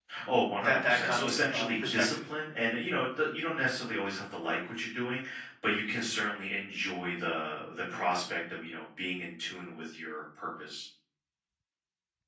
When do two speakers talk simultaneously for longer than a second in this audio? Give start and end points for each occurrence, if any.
0.6-2.1

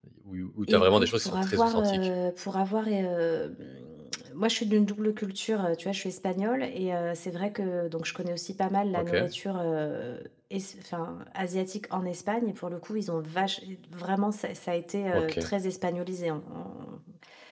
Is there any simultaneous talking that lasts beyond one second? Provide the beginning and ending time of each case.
0.7-2.0

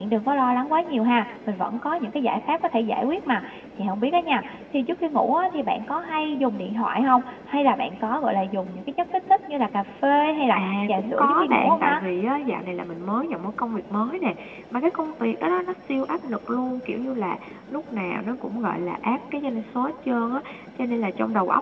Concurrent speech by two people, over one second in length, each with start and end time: 10.5-12.0

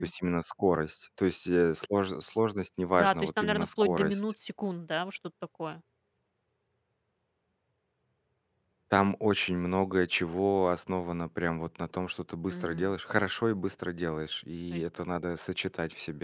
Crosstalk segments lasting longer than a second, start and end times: 3.0-4.2

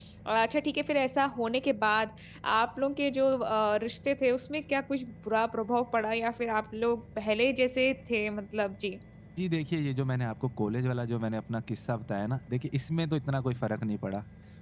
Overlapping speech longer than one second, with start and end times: none

